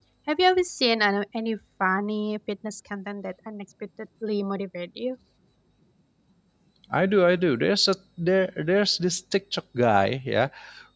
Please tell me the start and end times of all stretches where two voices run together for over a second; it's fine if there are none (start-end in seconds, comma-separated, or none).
none